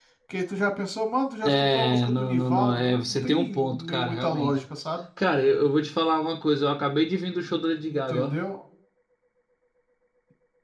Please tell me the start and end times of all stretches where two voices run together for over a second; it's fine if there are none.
1.4-4.6

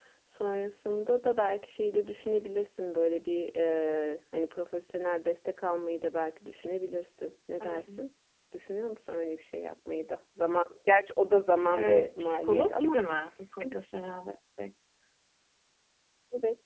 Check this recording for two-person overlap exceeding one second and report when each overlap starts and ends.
11.7-13.0

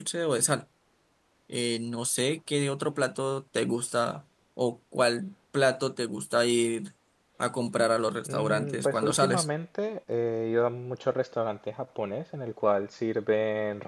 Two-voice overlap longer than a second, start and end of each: 8.2-9.5

